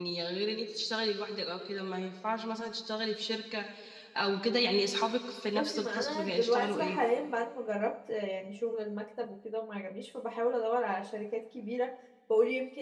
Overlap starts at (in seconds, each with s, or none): 5.6 s